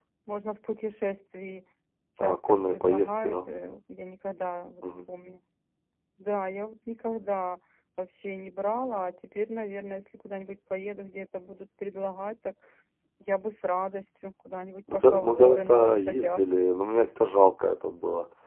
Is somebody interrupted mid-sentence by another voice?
Yes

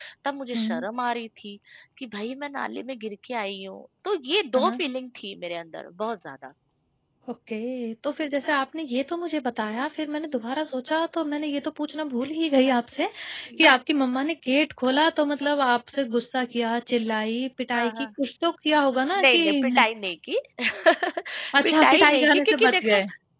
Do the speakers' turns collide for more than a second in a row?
Yes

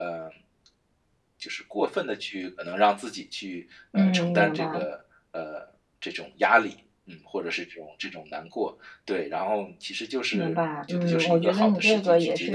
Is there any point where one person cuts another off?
Yes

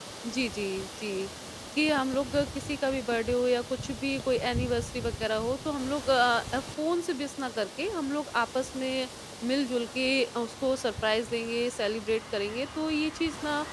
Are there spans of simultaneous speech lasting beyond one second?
No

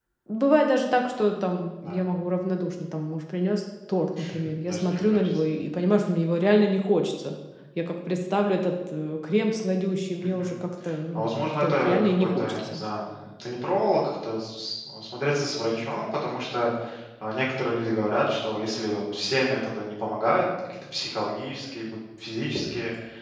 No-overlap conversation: No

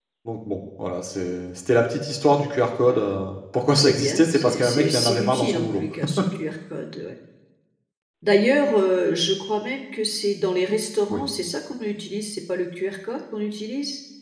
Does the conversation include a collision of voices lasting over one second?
Yes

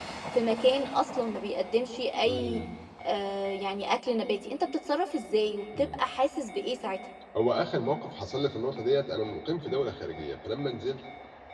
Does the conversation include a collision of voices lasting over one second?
No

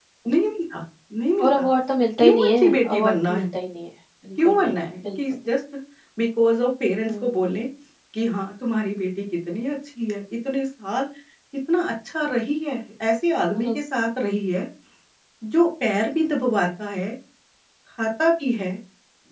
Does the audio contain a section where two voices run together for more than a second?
Yes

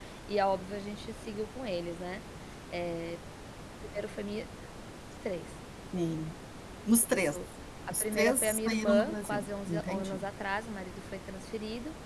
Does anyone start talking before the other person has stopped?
Yes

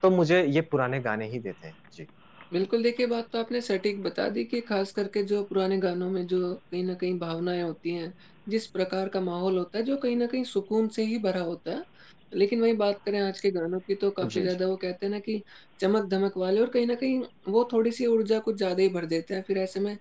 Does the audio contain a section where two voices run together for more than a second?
No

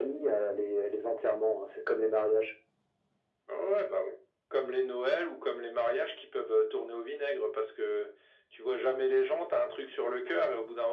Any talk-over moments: No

